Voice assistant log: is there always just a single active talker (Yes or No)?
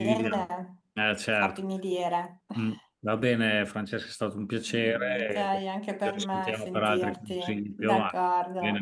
No